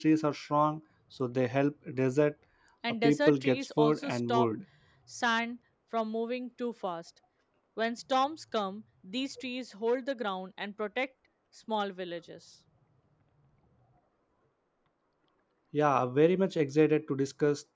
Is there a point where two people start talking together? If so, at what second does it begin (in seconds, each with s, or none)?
3.0 s